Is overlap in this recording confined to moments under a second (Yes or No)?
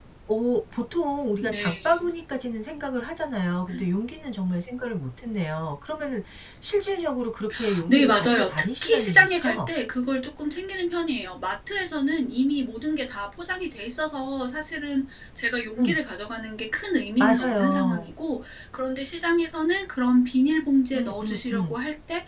No